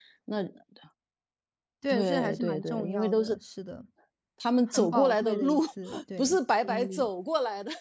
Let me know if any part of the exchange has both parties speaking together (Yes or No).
Yes